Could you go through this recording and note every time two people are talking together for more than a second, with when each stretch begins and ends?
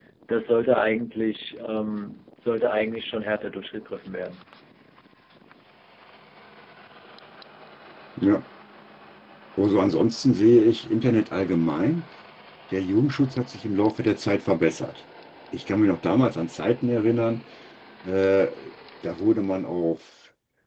none

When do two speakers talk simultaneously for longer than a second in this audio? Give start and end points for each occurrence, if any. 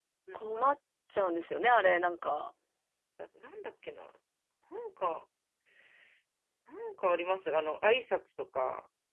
none

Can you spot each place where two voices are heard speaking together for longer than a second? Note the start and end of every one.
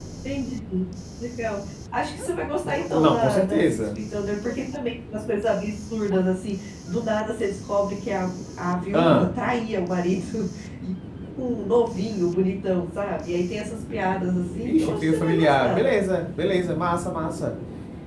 2.6-4.0, 14.6-15.8

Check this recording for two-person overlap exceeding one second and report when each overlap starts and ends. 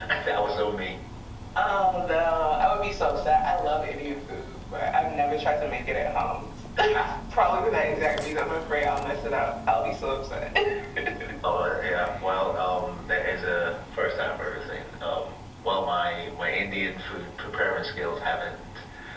none

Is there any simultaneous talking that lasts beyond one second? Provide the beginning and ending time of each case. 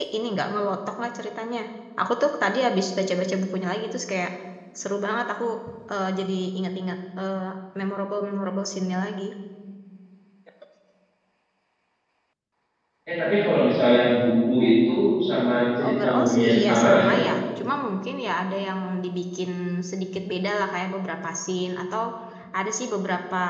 15.9-17.2

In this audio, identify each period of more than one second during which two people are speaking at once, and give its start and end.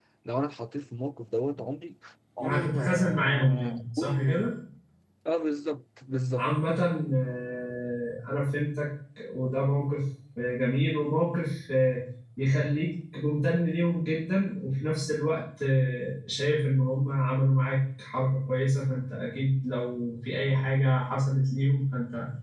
2.4-4.3

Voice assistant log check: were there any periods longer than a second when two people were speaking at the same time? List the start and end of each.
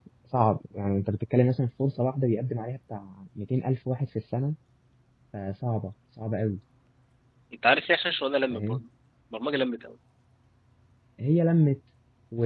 none

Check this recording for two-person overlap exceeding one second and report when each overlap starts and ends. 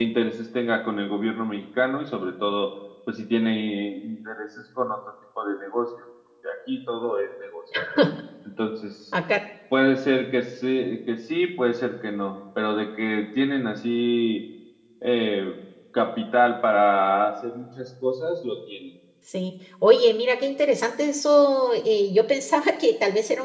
none

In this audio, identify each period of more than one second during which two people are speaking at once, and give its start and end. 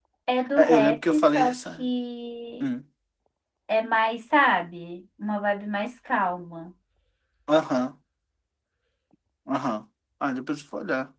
0.6-1.9

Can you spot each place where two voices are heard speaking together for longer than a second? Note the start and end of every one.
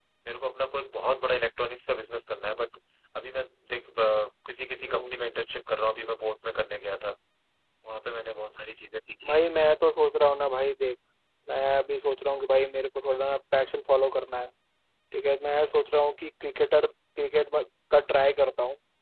none

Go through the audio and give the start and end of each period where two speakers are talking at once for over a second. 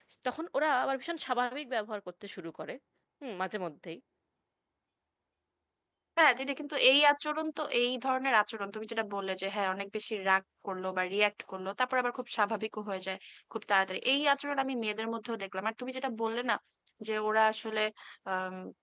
none

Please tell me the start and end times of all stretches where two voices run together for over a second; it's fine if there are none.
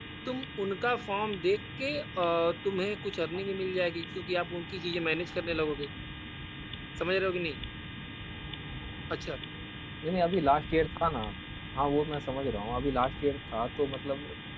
none

